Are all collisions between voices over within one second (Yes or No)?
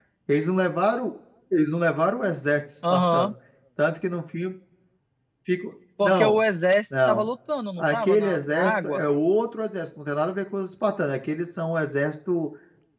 No